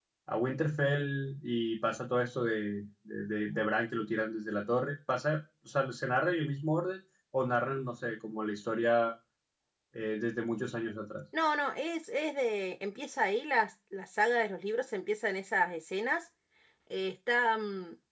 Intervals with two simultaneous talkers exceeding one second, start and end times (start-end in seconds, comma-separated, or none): none